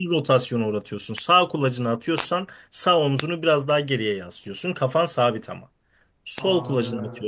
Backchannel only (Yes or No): Yes